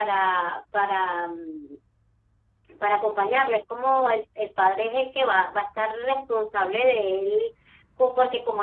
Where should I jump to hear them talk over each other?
none

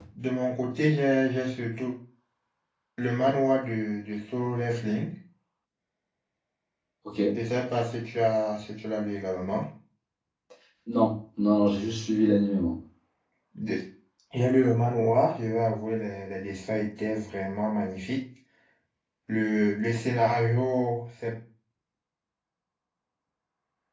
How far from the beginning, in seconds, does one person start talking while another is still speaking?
none

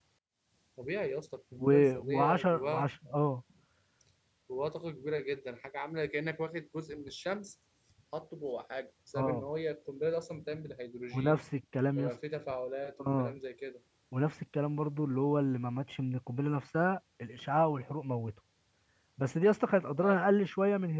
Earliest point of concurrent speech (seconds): 1.6 s

